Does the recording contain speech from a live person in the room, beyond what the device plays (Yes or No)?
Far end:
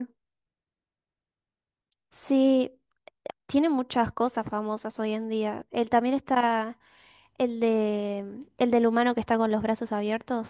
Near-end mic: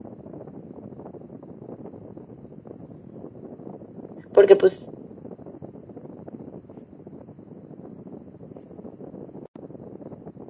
Yes